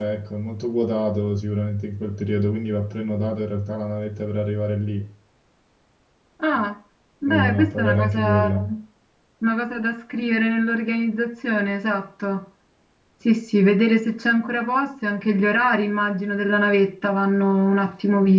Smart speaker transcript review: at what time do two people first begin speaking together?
7 s

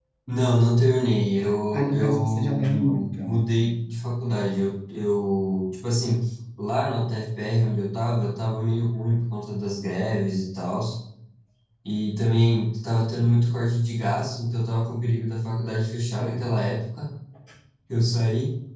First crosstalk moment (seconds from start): 2 s

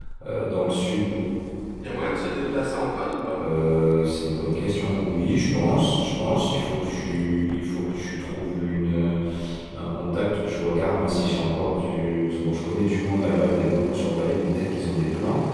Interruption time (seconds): none

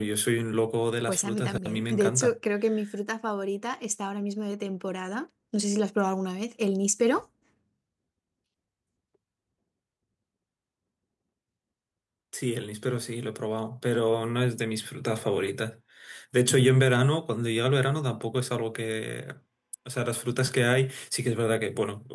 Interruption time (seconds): 1 s

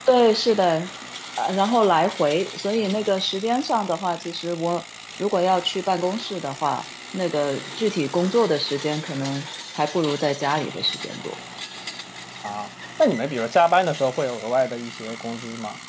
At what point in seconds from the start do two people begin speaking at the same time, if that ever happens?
none

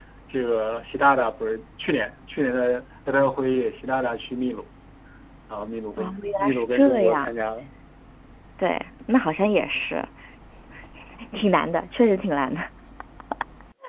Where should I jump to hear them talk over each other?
6 s

